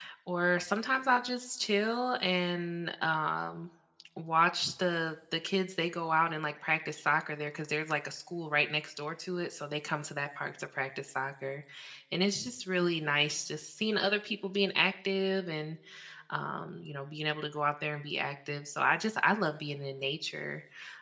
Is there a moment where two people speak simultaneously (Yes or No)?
No